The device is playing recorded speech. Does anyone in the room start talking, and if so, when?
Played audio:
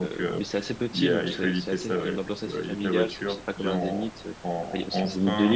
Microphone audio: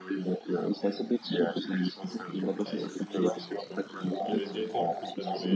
2.6 s

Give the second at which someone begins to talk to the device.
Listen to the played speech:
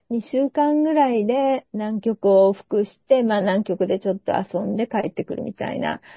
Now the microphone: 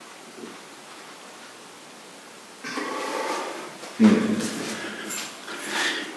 4.0 s

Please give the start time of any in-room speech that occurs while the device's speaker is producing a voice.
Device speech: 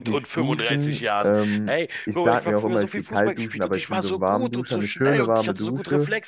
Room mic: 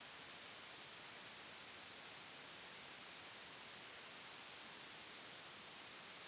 none

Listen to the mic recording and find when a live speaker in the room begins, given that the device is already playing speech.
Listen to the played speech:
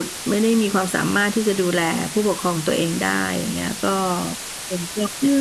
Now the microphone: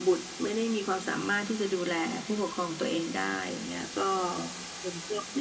none

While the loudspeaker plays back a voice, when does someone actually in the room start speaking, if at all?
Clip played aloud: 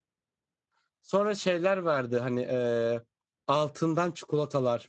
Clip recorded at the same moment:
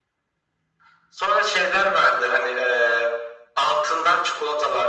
none

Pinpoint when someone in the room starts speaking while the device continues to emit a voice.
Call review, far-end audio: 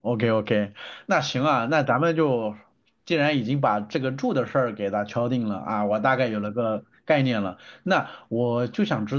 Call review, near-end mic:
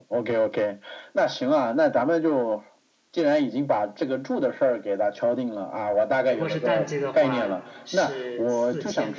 6.2 s

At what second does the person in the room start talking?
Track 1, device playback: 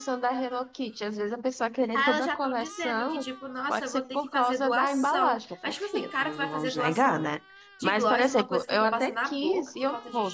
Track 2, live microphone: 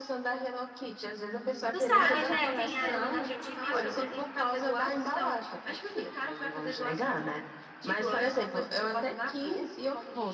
1.7 s

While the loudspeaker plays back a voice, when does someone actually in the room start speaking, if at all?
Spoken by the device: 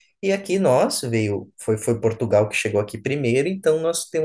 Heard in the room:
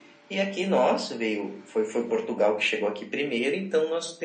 none

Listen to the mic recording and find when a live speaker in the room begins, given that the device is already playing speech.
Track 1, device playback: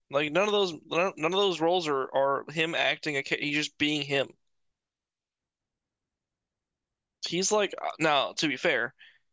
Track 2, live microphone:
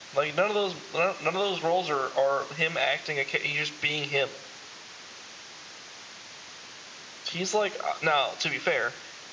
none

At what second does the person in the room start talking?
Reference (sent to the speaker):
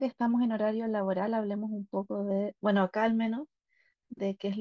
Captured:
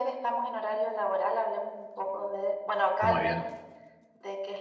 3.0 s

